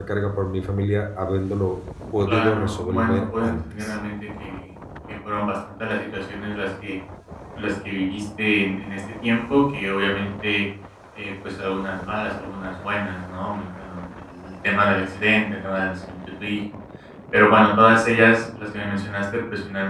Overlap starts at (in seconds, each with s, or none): 2.3 s